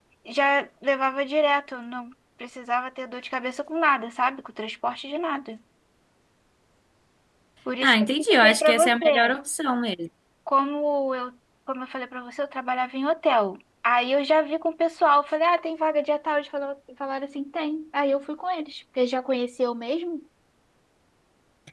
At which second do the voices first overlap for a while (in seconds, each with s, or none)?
7.8 s